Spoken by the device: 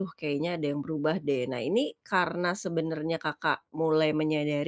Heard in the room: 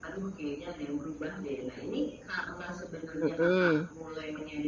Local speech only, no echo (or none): Hmm.